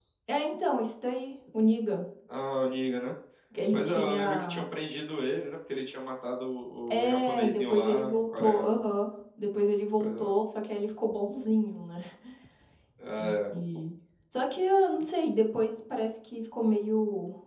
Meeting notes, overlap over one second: present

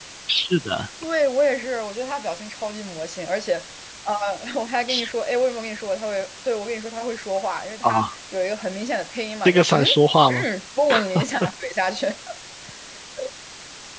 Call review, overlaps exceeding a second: none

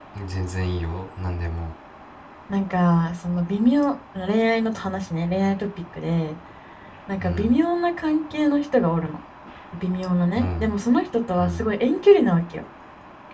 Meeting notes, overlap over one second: none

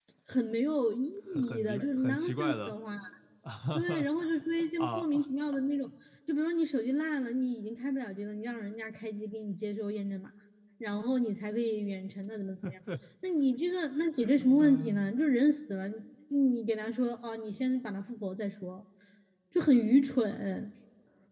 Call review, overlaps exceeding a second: present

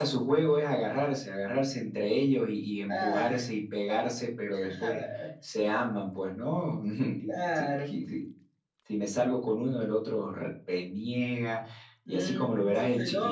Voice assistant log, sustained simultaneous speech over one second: present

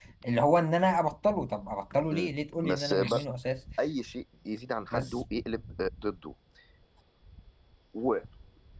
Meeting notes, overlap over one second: none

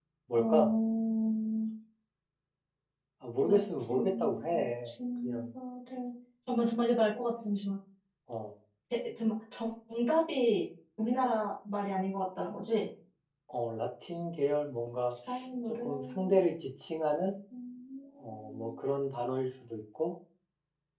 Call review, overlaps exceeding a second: present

